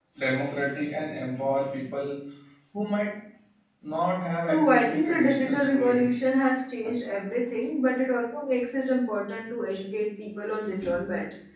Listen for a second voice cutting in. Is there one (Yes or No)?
Yes